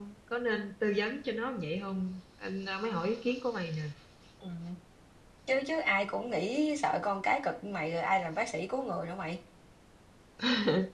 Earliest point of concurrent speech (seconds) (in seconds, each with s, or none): none